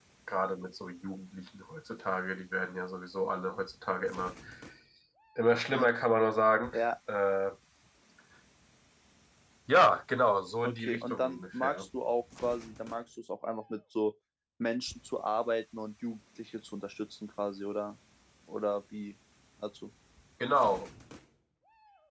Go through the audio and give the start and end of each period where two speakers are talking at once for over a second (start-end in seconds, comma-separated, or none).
10.6-11.9